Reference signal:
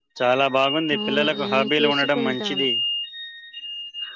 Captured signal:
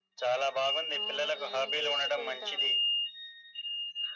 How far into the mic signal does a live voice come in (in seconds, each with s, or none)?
none